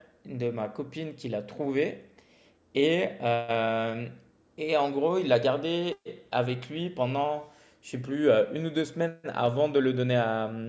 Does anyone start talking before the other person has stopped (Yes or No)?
No